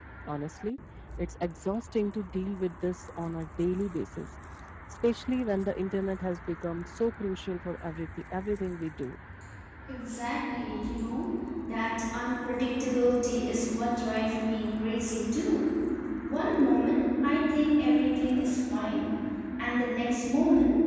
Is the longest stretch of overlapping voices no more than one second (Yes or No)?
Yes